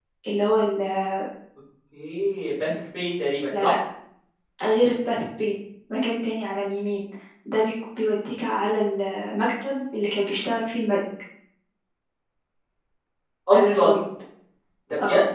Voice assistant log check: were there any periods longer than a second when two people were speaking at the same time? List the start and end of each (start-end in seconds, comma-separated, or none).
none